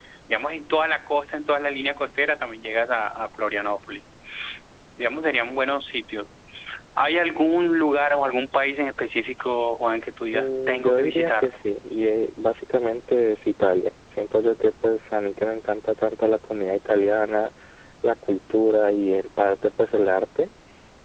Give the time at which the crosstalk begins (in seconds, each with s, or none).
10.3 s